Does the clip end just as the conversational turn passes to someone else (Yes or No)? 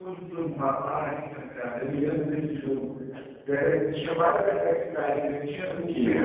No